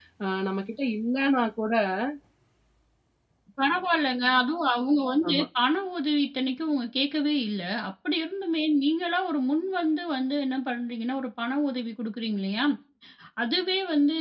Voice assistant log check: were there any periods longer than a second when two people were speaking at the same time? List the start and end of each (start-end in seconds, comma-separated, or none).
none